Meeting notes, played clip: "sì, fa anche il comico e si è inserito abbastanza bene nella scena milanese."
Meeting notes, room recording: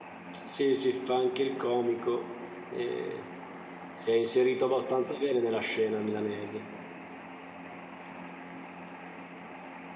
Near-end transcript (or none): none